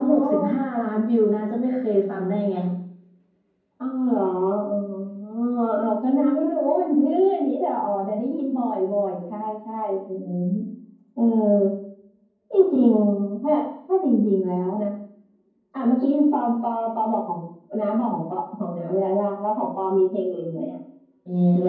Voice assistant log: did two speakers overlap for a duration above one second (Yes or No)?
No